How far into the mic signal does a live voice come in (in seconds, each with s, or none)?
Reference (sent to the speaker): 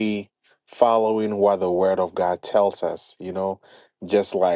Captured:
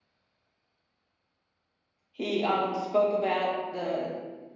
2.1 s